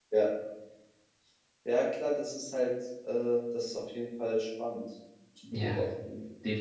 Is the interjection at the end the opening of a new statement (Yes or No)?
Yes